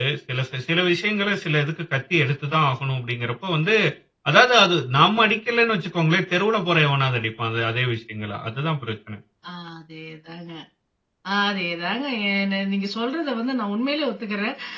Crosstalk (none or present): none